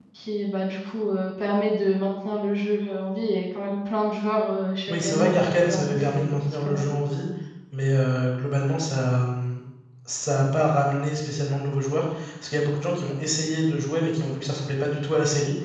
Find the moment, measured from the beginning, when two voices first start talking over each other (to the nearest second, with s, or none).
5 s